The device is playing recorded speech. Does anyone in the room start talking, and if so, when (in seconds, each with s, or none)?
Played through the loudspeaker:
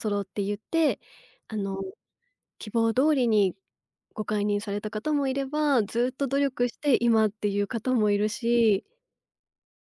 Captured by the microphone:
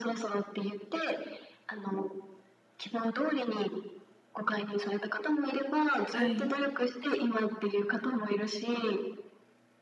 6.1 s